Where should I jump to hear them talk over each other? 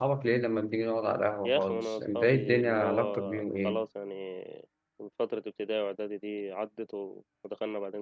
1.4 s

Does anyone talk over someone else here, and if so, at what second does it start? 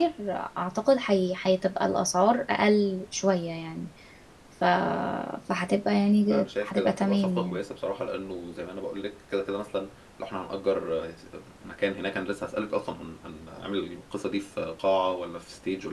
6.3 s

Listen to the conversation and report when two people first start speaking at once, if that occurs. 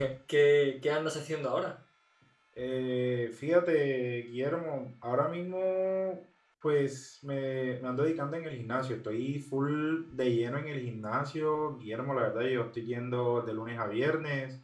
none

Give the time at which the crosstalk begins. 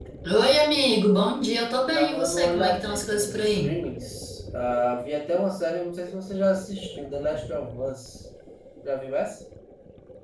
1.9 s

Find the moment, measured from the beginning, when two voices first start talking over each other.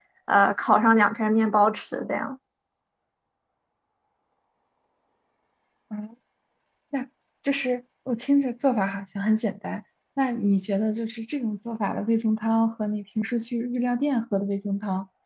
none

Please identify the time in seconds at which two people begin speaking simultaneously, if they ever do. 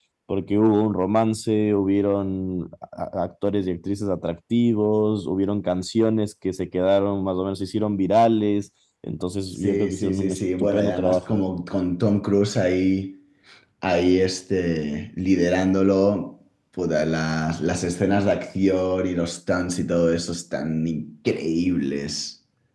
9.6 s

